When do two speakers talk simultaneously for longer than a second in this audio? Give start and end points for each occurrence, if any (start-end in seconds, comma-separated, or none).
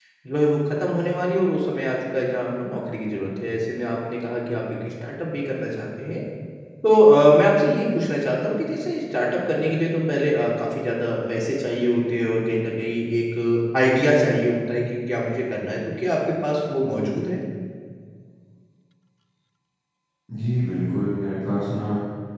none